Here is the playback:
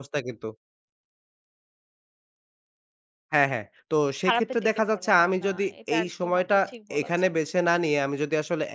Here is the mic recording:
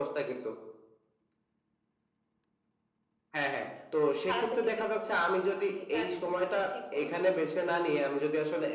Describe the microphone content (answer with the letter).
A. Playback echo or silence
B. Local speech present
A